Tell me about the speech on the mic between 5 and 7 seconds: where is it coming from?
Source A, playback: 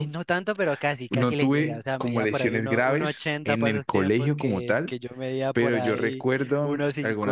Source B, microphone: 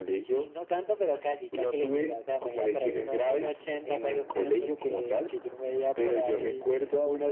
echo only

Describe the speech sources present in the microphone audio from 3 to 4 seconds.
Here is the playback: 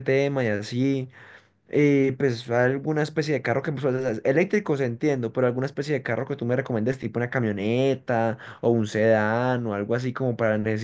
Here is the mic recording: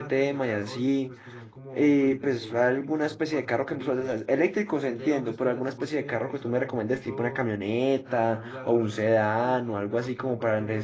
both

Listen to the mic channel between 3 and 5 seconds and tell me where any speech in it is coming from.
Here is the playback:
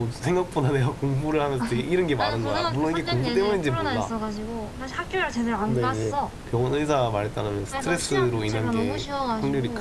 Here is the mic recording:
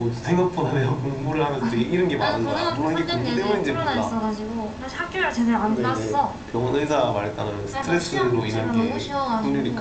echo only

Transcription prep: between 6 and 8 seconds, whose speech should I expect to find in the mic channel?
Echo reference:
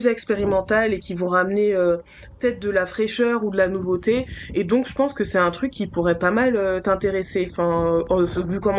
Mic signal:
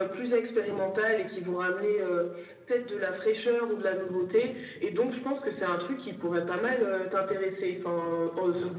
echo only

